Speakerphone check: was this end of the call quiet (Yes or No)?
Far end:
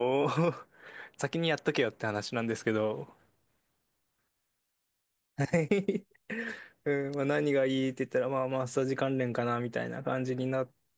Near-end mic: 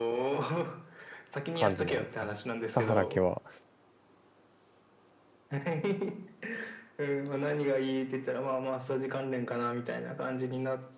No